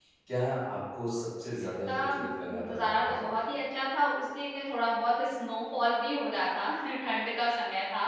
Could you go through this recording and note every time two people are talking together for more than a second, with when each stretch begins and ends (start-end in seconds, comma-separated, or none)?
1.9-3.5